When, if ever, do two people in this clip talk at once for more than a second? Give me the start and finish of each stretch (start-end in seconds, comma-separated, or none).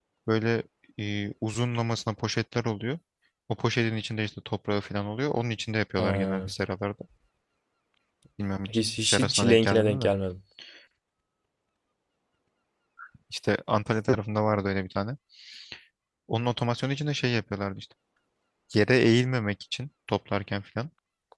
8.7-10.1